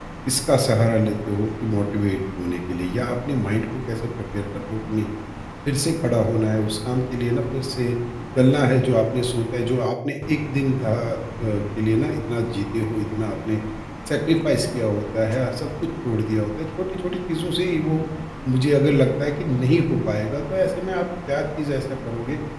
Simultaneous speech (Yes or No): No